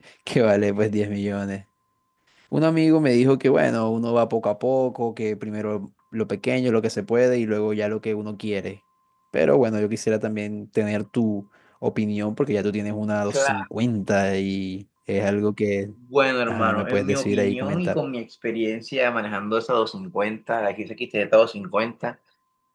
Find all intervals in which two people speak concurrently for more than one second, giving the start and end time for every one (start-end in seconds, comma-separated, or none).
16.5-18.0